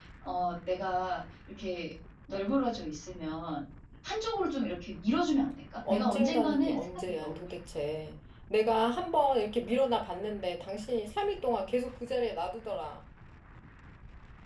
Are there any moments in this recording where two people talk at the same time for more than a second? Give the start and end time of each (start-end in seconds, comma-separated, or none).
5.8-7.3